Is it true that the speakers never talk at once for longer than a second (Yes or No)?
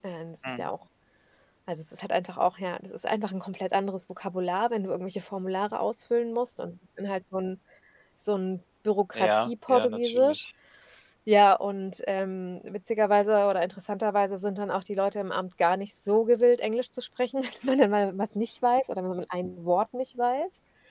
No